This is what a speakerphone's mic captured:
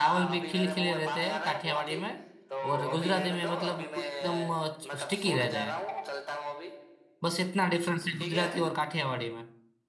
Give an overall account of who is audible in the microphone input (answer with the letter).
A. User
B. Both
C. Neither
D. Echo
B